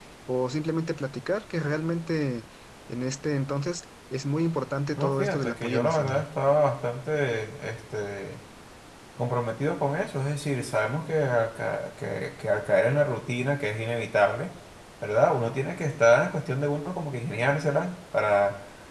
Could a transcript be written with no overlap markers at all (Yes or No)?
No